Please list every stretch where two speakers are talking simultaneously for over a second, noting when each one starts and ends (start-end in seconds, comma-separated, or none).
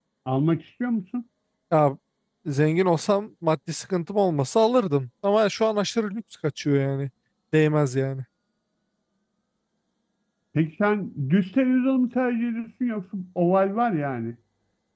none